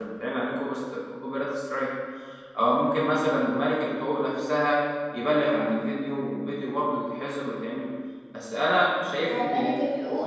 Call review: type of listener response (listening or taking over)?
taking over